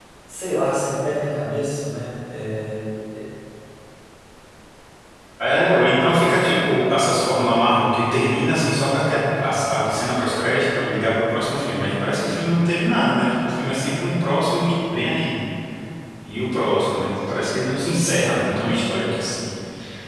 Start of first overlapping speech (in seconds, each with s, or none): none